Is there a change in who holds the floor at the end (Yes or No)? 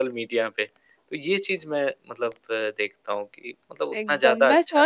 Yes